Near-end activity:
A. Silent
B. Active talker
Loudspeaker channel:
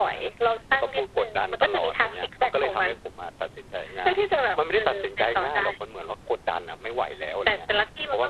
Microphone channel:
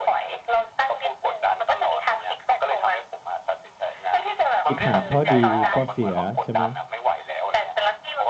B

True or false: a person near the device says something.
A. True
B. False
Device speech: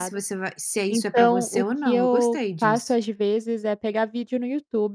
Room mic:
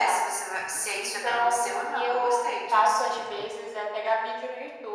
B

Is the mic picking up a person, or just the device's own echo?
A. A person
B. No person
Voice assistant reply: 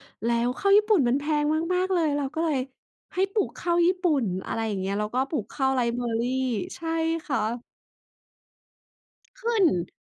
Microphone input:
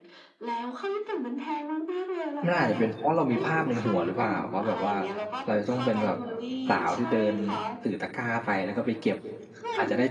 A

